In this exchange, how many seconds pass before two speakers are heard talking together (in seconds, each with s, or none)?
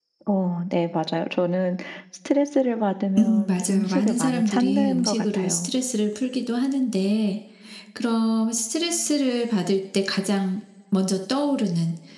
3.2 s